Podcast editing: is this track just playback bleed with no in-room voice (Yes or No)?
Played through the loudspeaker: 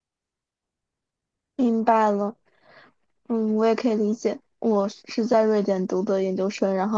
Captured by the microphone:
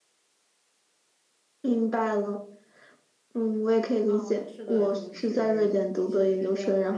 No